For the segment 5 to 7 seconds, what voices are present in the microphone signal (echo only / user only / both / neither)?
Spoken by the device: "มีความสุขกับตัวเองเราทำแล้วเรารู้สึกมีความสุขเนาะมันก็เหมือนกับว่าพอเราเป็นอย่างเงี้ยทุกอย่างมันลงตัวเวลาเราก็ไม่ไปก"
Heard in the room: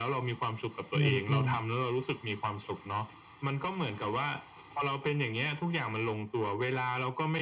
echo only